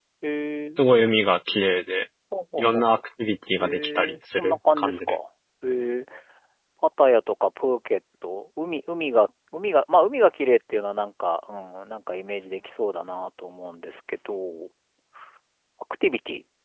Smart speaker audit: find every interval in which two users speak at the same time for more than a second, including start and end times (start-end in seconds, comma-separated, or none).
3.6-5.2